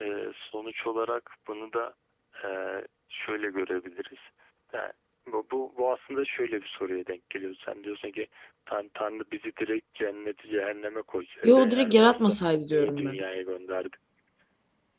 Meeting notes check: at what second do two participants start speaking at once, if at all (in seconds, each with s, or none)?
11.4 s